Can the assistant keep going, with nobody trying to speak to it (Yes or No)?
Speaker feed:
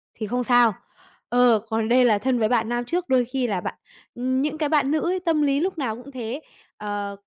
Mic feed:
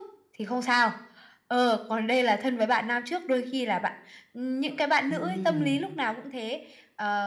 No